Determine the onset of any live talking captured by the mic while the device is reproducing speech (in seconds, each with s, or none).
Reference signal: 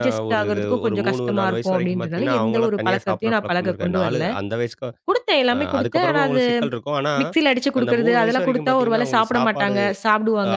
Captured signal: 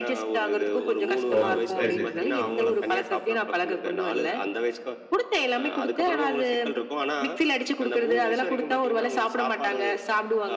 1.4 s